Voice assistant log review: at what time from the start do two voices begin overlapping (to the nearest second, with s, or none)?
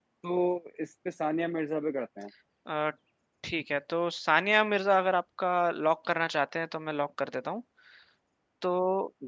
none